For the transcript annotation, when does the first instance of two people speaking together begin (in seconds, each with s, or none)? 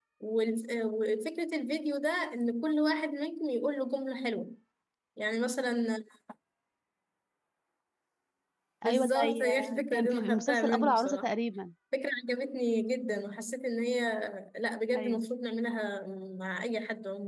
8.8 s